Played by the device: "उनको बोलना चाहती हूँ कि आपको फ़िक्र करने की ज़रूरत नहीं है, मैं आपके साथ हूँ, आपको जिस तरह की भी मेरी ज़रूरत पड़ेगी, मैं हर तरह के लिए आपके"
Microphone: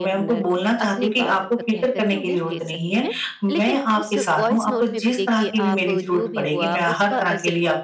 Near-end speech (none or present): present